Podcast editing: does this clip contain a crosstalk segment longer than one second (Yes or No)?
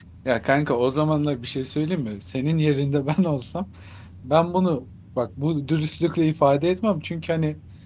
No